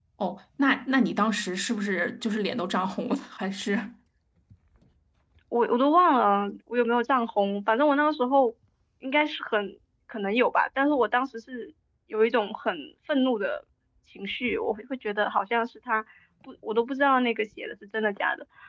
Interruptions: none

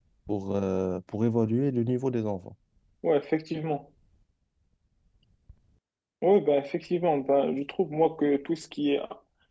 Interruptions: none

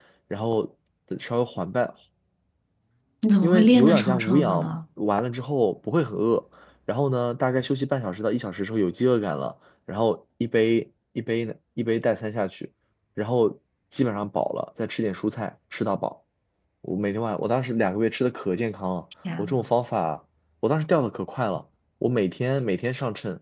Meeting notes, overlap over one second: present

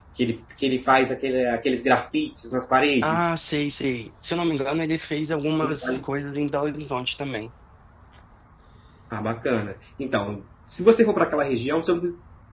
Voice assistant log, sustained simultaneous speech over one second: none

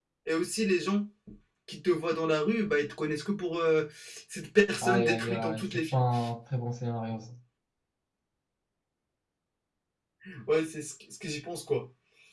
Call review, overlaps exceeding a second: present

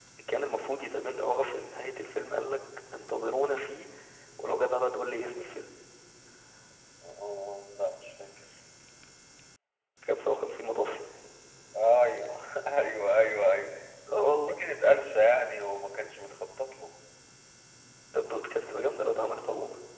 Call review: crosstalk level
none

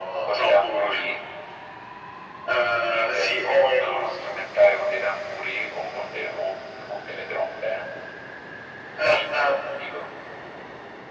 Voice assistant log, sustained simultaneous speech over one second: present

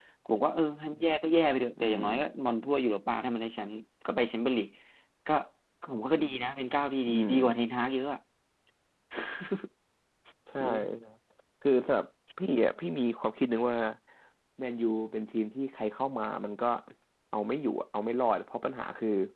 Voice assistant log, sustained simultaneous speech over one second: none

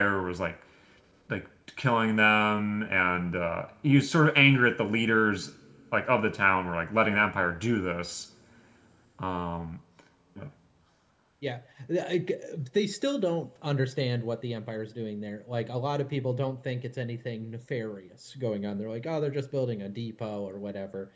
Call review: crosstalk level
none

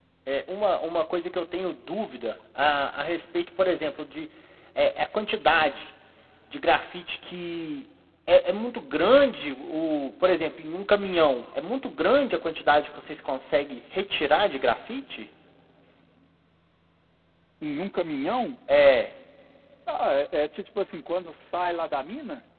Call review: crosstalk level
none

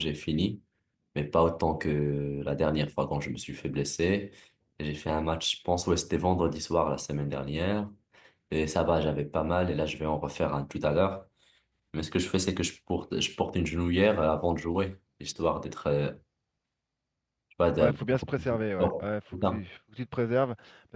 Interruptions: present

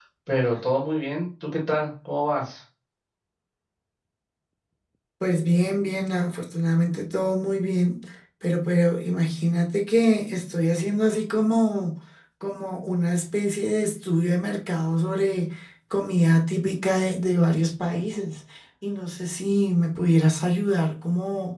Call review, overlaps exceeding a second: none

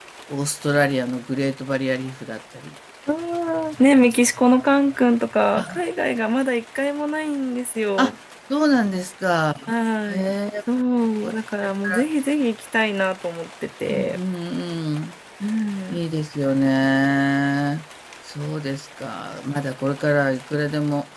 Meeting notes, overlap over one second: none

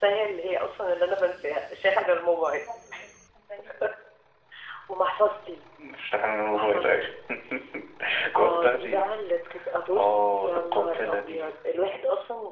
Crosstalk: present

